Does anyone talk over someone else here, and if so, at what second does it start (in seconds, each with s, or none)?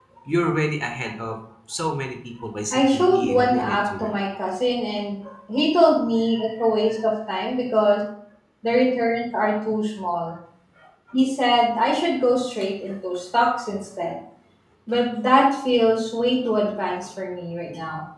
2.7 s